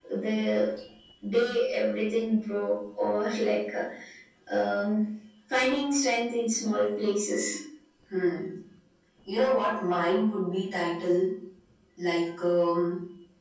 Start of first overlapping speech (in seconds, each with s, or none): none